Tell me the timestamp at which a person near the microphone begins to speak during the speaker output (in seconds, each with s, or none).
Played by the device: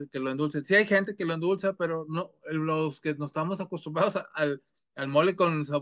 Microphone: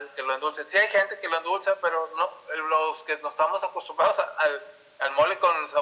none